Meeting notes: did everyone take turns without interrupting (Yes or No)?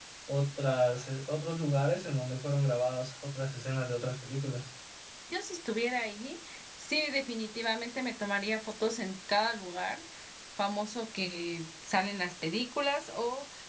Yes